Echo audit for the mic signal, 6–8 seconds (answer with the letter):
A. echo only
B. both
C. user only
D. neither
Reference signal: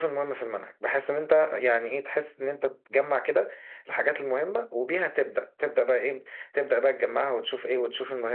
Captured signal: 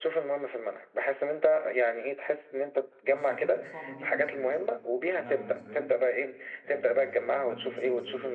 B